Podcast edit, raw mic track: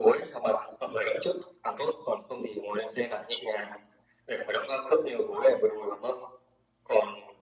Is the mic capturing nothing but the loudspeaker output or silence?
Yes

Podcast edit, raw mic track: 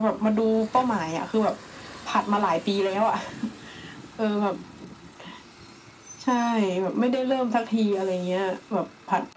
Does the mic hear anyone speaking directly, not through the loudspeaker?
No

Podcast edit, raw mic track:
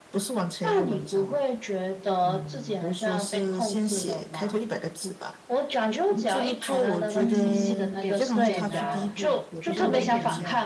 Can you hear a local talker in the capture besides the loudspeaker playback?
Yes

